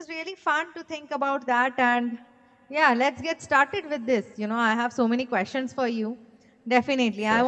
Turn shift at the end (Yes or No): No